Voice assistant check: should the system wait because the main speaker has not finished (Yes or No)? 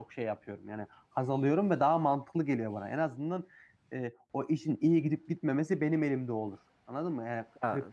Yes